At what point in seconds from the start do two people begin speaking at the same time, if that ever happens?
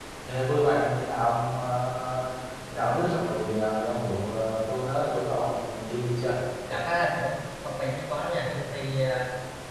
none

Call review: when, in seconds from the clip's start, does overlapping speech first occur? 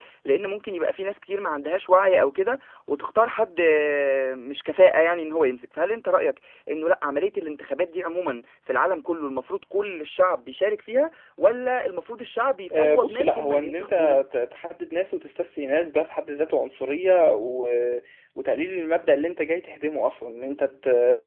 12.7 s

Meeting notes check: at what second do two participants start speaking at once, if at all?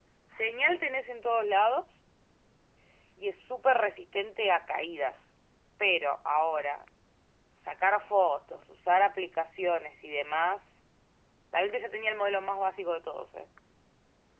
none

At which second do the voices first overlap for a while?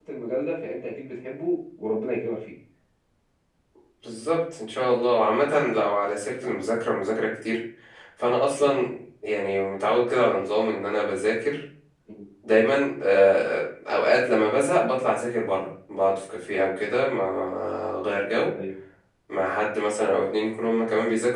none

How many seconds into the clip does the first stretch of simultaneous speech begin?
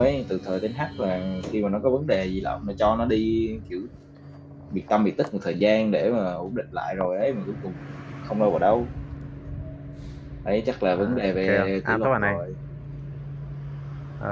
10.9 s

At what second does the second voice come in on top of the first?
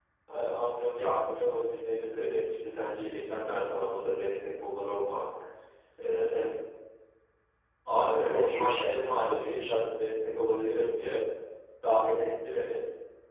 8.2 s

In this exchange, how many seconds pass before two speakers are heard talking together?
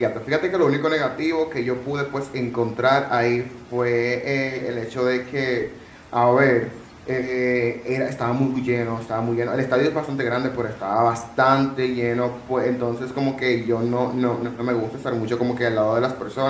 none

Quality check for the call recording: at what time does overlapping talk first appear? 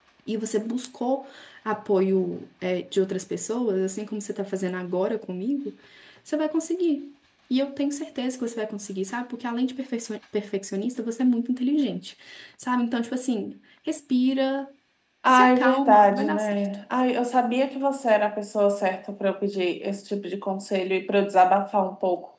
15.3 s

